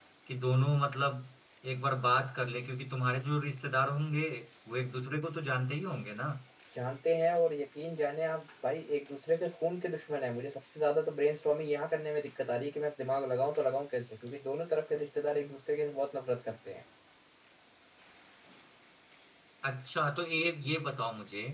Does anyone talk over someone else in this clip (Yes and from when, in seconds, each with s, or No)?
No